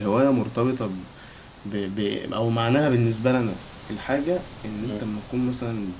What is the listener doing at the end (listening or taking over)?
listening